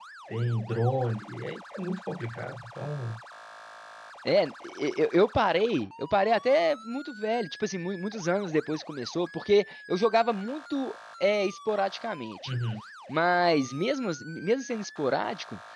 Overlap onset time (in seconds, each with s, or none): none